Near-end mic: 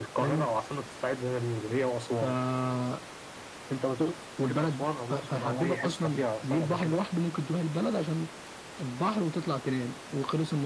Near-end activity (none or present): none